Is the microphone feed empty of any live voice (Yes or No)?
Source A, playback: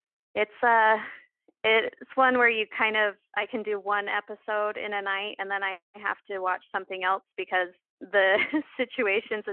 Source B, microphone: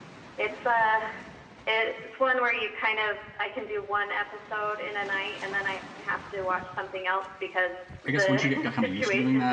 No